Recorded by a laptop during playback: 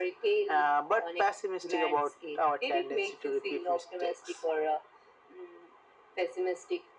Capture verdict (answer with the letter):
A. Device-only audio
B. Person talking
A